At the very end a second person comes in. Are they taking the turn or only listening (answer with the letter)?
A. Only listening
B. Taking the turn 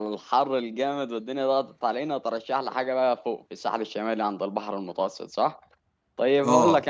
A